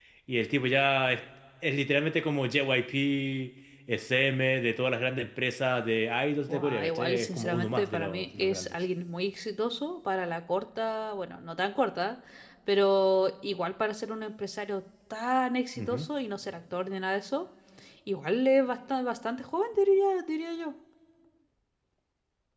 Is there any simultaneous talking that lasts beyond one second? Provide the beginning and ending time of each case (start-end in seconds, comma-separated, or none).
6.5-8.7